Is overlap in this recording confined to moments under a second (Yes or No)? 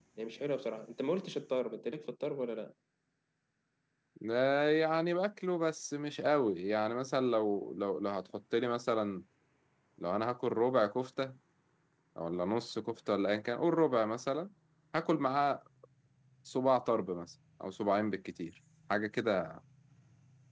Yes